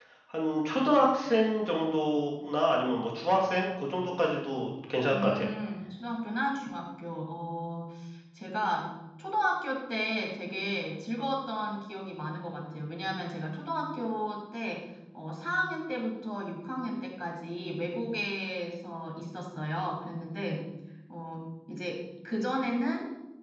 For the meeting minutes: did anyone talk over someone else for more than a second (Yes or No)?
No